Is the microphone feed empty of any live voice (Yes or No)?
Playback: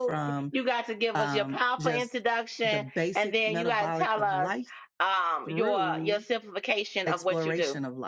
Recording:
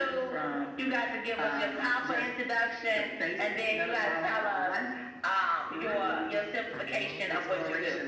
No